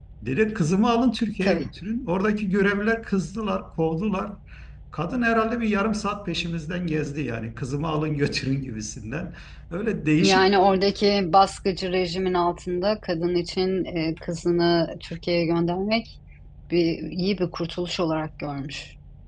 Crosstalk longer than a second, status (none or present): none